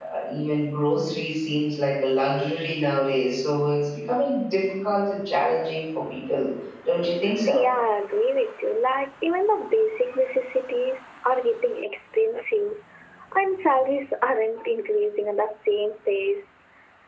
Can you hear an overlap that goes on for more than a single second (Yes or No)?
No